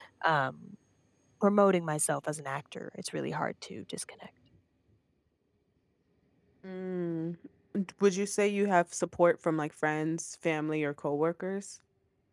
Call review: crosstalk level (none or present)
none